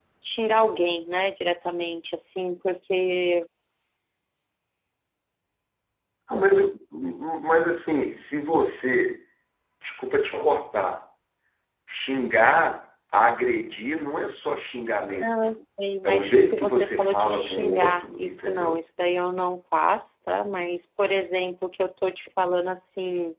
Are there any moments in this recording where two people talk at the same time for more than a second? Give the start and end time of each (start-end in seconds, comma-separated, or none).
16.0-18.8